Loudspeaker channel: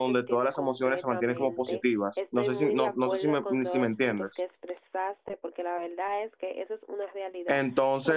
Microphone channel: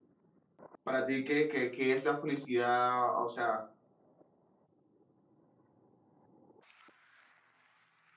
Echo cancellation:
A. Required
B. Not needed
B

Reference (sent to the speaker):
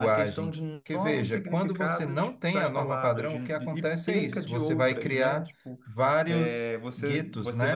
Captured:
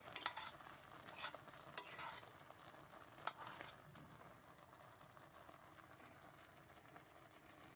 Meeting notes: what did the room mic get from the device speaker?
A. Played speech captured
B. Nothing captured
B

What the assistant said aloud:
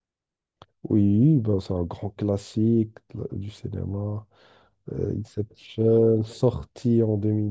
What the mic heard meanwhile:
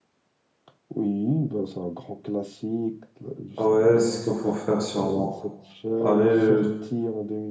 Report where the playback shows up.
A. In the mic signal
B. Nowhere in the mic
A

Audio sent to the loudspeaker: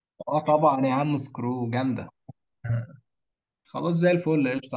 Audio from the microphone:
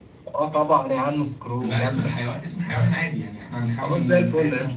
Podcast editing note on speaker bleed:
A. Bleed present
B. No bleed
A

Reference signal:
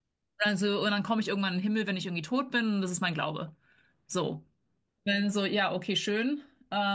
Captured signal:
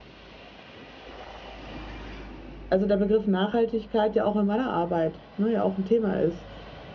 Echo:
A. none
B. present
A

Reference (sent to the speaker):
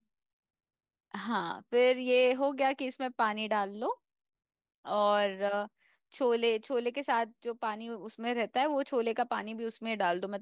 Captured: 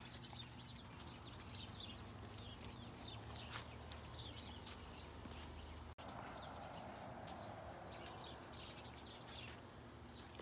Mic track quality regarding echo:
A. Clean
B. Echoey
A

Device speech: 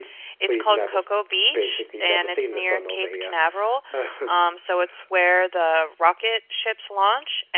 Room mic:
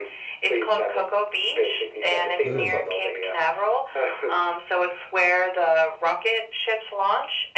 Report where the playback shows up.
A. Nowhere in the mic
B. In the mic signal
B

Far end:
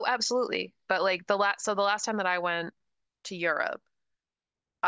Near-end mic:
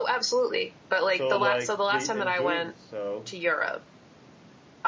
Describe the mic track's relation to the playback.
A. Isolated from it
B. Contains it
B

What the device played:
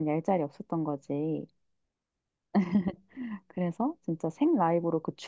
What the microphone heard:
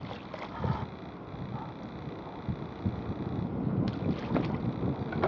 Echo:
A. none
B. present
A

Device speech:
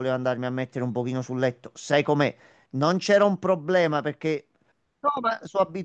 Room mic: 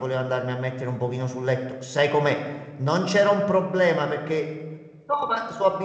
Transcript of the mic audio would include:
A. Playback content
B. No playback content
A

